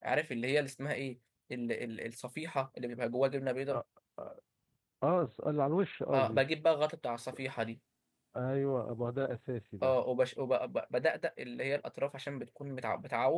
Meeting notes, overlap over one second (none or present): none